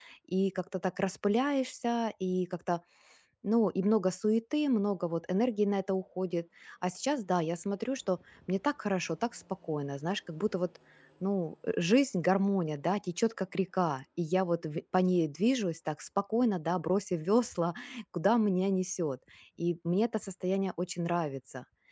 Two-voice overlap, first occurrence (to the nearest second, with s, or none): none